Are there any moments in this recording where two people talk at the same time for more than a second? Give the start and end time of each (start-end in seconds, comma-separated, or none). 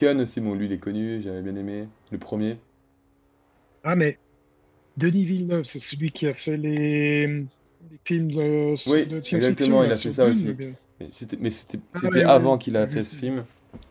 8.9-10.5, 12.0-13.3